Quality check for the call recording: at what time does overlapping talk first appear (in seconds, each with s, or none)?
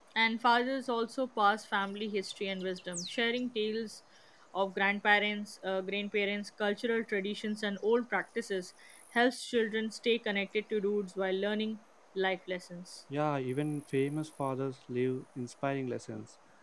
none